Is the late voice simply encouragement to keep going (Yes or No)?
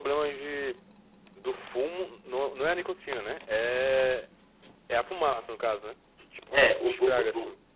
No